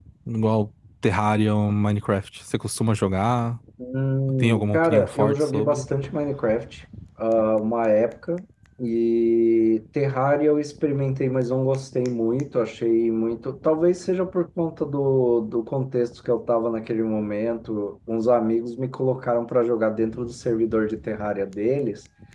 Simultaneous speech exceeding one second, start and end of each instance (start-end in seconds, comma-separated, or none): 4.4-5.8